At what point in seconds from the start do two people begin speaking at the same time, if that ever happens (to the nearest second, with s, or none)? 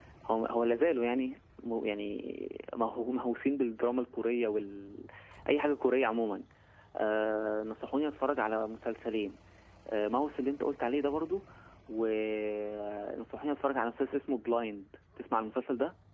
none